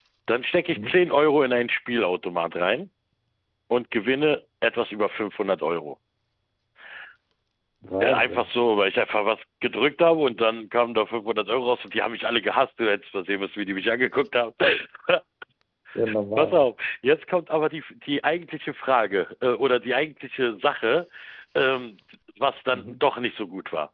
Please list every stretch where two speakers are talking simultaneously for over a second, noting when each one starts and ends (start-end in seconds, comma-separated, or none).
none